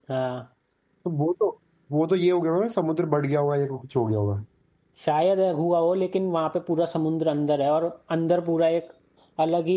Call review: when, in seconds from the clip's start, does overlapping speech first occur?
none

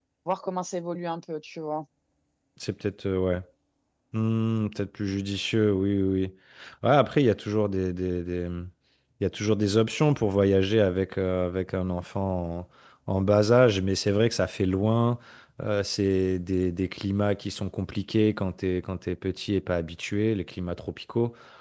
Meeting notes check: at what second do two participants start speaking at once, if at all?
none

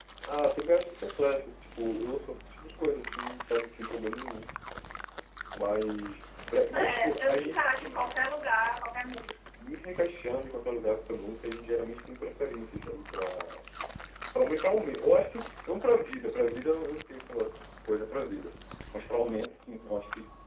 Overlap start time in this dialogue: 6.7 s

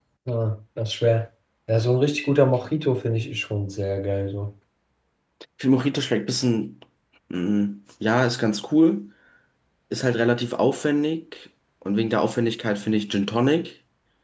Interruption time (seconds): none

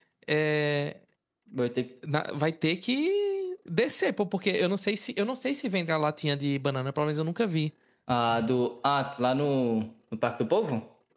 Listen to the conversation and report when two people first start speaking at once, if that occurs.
none

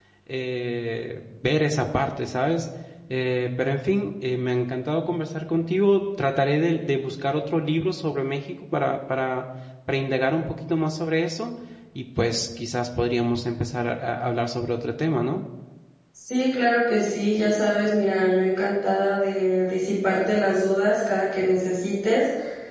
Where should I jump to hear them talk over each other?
none

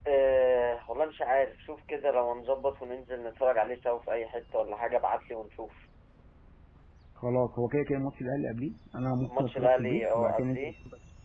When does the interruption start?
9.2 s

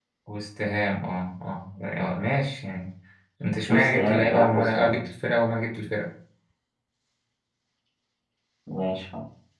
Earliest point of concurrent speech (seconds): 3.7 s

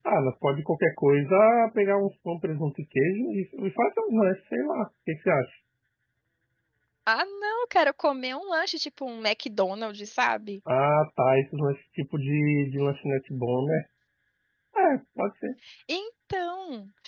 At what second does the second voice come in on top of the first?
none

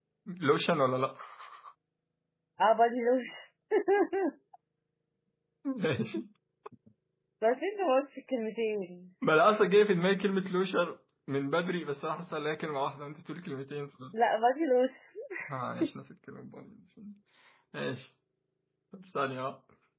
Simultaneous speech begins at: none

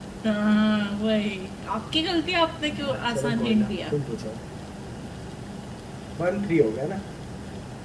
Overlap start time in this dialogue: 2.6 s

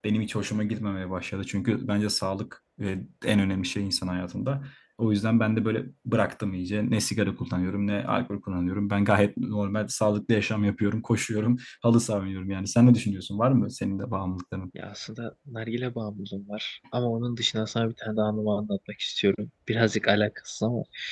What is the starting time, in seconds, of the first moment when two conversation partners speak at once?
none

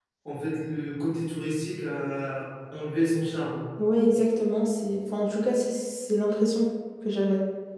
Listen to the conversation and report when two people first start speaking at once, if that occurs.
none

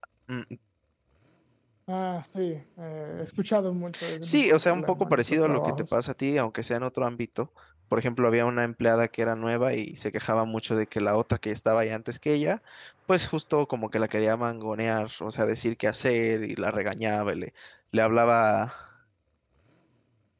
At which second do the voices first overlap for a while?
4.2 s

